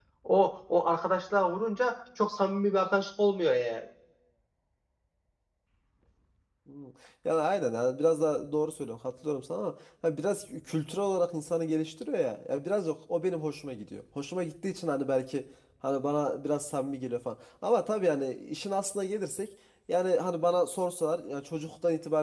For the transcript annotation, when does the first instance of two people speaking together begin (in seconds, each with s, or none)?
none